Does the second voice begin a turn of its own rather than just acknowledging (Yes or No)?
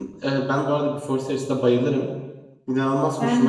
No